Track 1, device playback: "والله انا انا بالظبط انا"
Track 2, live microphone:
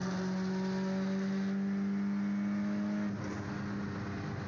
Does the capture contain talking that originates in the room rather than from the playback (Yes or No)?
No